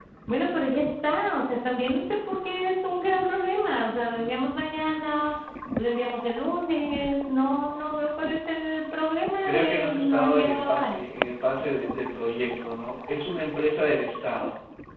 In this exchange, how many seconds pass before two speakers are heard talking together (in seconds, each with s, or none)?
9.4 s